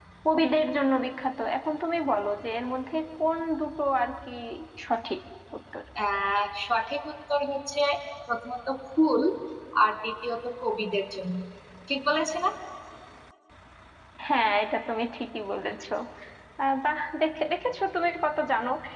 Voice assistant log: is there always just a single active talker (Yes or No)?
Yes